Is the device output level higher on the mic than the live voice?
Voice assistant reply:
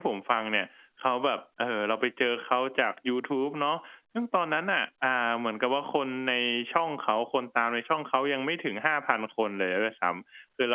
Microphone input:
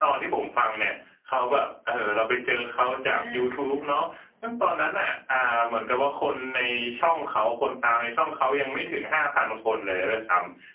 Yes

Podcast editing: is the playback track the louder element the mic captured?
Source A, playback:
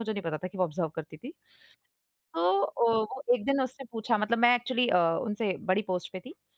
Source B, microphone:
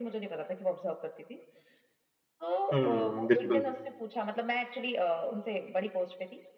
No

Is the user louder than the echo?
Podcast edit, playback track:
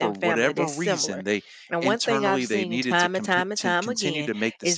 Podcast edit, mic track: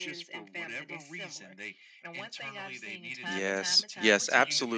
Yes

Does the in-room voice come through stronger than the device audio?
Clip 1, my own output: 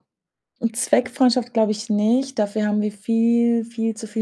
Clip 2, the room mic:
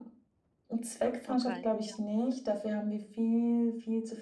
No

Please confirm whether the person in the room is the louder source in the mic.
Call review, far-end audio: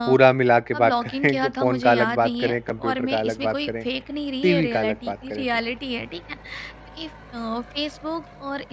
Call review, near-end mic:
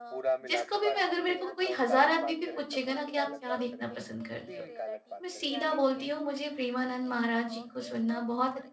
Yes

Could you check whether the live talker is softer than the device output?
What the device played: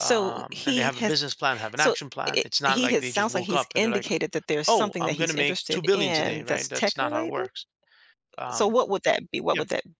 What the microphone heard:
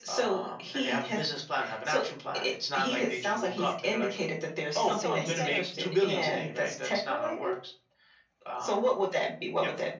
Yes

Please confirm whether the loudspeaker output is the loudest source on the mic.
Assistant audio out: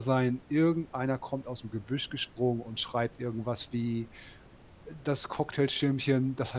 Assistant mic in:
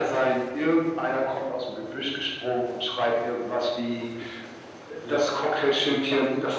Yes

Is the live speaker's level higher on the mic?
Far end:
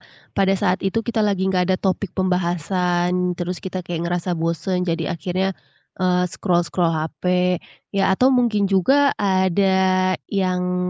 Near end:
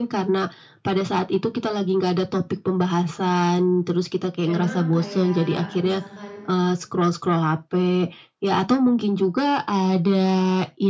No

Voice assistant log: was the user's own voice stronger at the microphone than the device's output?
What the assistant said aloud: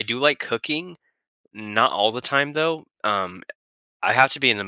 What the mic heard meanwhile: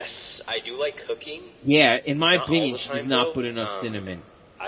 Yes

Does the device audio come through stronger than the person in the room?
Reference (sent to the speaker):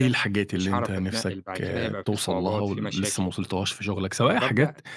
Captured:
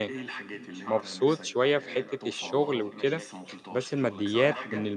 No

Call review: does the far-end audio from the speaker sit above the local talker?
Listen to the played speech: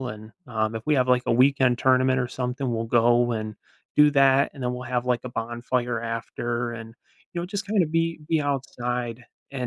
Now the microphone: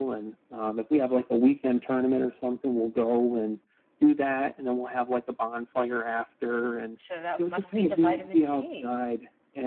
Yes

